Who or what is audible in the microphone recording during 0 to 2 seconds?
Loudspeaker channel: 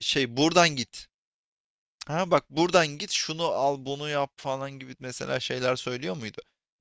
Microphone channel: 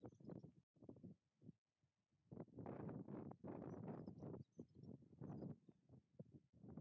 neither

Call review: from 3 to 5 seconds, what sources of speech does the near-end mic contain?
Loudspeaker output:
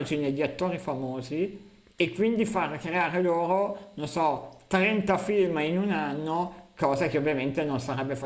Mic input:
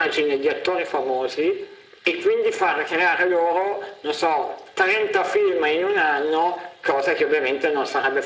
echo only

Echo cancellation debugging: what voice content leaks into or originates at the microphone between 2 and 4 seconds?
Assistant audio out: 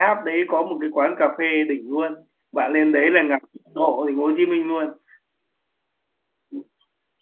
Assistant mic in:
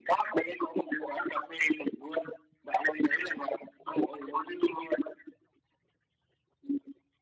echo only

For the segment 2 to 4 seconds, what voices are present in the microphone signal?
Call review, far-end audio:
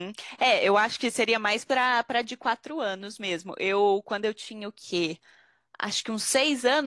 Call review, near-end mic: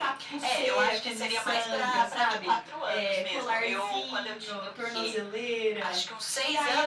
both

